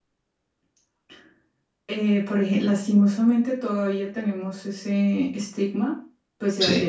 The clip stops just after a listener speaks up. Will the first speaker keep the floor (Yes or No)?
Yes